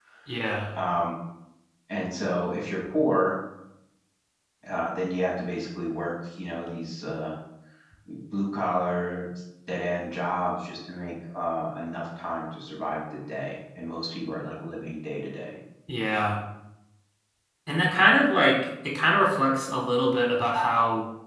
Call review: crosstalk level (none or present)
none